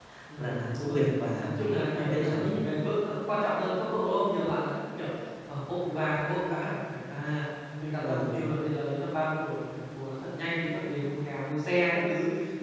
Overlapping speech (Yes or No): Yes